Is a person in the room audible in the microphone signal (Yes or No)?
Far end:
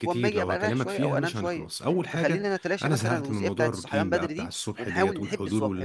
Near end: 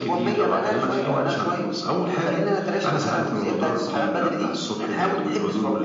No